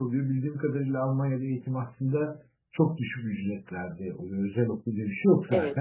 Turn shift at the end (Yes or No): No